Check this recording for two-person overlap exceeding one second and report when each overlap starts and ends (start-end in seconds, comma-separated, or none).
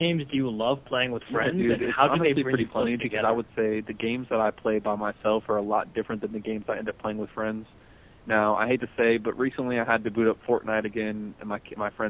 1.3-3.4